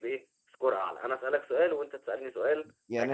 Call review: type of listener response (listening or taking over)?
taking over